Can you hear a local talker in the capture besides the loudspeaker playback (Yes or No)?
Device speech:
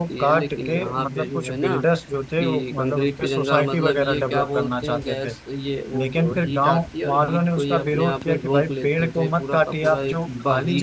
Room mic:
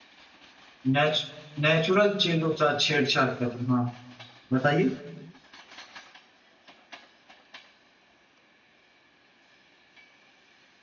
Yes